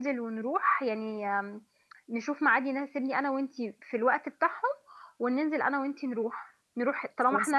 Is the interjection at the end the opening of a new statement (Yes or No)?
No